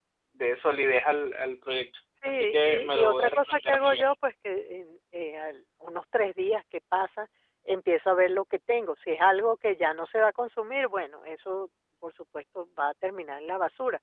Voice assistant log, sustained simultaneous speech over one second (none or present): present